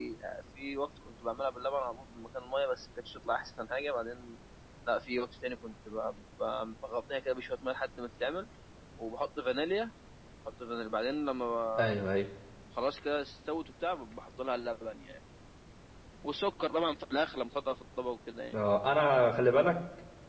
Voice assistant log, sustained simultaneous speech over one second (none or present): none